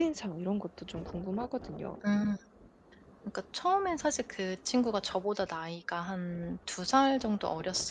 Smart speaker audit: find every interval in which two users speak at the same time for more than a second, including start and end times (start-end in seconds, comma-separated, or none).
none